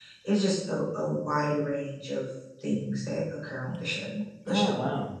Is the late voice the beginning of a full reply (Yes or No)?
Yes